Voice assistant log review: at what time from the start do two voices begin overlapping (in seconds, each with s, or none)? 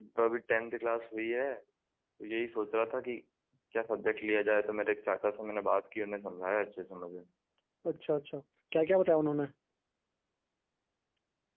none